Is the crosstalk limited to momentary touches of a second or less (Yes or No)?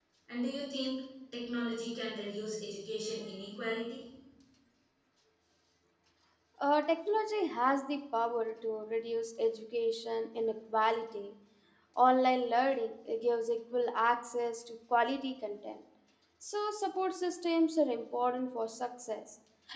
Yes